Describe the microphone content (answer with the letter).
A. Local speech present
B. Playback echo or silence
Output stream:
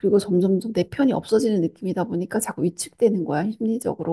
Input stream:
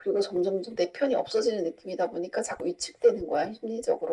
B